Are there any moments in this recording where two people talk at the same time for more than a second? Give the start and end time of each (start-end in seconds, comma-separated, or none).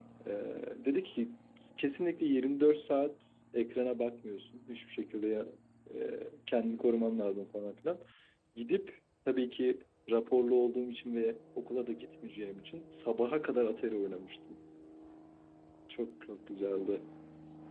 none